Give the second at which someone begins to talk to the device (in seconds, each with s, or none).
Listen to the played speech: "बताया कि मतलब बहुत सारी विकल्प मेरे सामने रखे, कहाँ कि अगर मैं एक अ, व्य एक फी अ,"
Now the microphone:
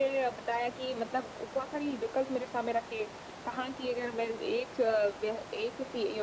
none